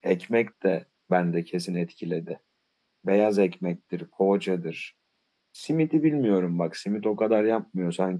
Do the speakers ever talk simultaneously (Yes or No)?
No